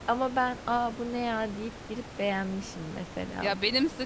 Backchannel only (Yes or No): No